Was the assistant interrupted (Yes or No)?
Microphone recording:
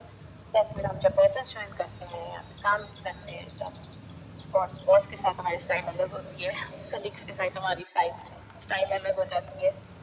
No